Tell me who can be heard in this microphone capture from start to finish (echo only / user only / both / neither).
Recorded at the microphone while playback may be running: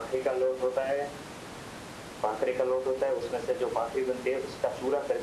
echo only